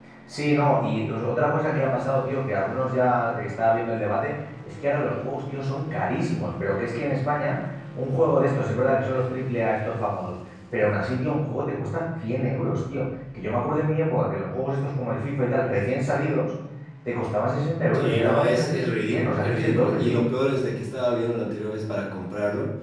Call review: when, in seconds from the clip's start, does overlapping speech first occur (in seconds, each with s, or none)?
17.9 s